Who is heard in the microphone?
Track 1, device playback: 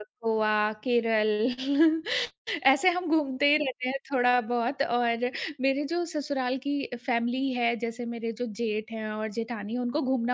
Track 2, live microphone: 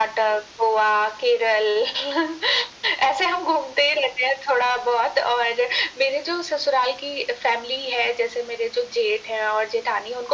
echo only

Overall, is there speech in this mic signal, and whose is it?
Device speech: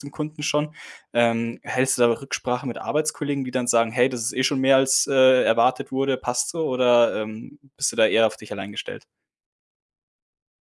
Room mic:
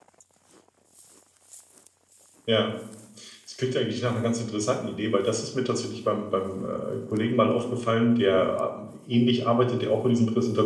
user only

